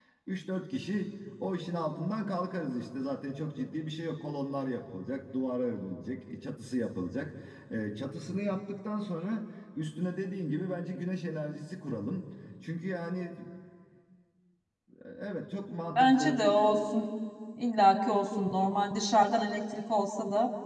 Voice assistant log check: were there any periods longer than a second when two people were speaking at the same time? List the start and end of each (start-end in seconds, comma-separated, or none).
none